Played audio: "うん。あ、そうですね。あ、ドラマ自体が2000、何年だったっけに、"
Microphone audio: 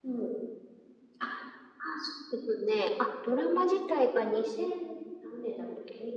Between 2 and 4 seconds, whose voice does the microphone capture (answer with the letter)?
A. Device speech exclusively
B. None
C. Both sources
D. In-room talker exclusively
A